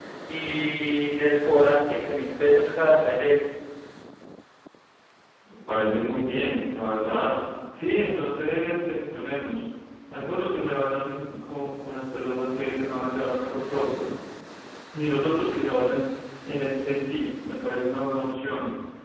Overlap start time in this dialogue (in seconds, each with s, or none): none